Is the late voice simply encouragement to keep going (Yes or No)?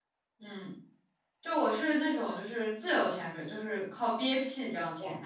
No